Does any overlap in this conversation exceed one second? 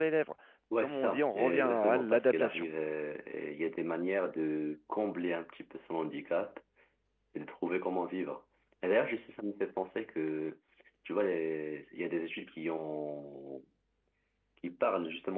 Yes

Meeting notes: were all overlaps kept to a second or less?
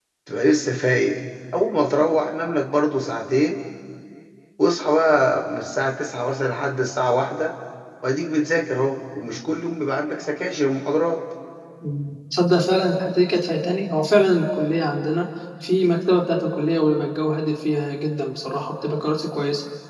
Yes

